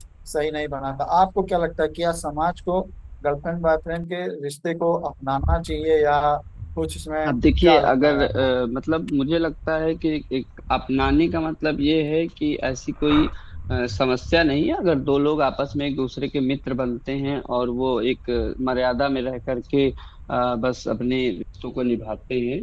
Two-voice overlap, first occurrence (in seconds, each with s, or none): 7.3 s